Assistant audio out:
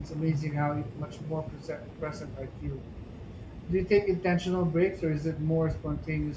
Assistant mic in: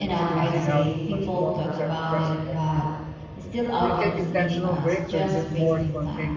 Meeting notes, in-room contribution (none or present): present